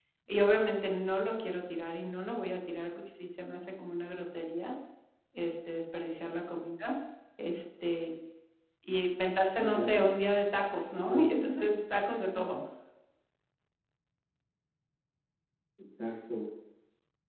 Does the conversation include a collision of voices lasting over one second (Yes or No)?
No